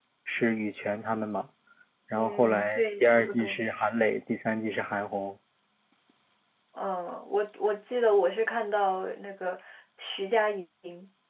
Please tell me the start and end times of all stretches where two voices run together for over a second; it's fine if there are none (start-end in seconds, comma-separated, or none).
2.1-3.6